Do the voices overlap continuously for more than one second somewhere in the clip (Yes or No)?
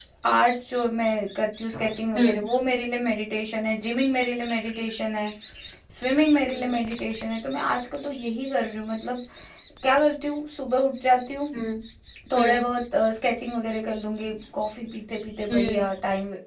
No